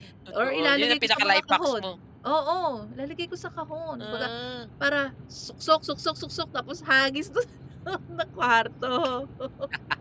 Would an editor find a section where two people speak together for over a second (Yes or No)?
Yes